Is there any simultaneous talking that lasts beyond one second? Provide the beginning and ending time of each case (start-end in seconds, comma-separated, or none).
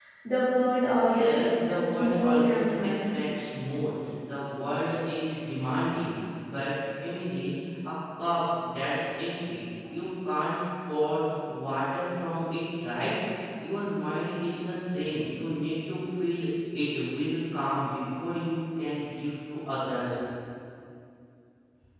1.1-3.2